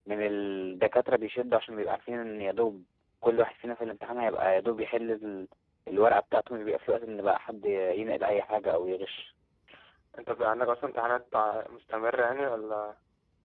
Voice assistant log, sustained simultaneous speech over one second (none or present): none